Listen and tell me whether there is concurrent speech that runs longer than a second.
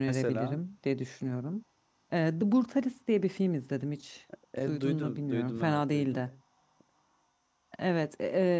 Yes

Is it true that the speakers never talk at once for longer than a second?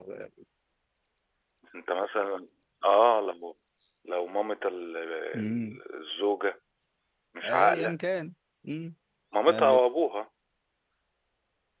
Yes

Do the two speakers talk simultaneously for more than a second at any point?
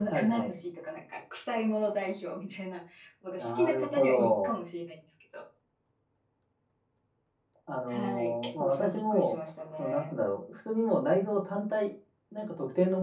Yes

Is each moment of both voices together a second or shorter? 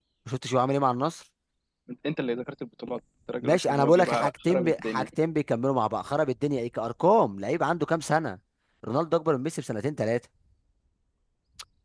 No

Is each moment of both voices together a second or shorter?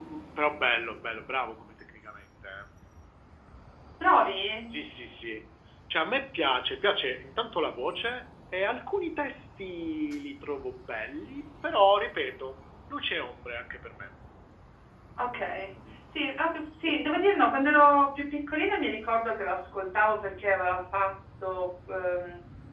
Yes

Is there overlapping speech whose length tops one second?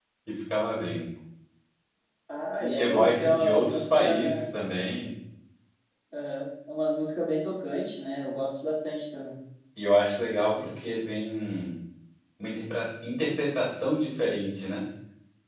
Yes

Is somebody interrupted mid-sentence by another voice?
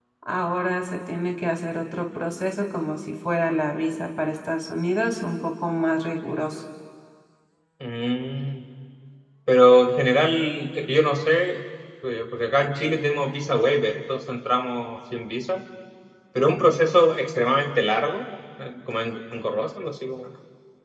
No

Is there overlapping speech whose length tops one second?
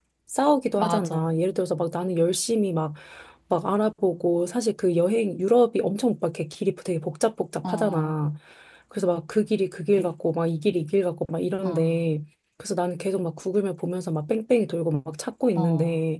No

